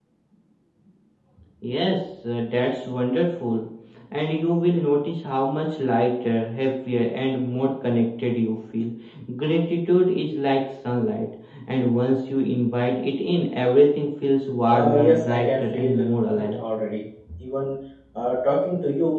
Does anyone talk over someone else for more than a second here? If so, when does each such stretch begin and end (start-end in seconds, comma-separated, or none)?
14.7-16.0